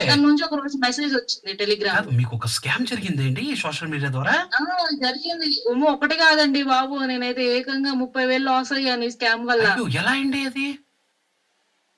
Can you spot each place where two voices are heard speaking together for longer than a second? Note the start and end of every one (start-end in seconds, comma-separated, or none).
none